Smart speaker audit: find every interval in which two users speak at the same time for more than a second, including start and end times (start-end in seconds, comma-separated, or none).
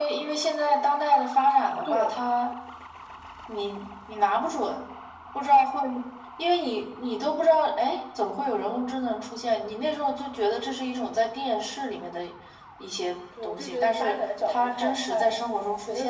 13.4-15.4